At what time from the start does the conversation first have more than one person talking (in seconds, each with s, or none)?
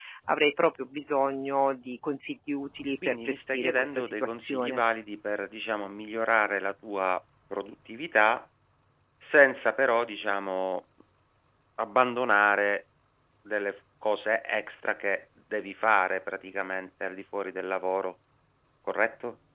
3.0 s